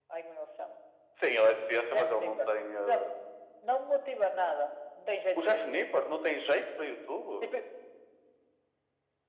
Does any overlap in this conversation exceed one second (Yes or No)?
Yes